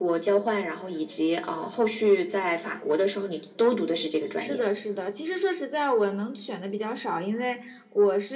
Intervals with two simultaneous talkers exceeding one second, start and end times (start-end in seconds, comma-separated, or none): none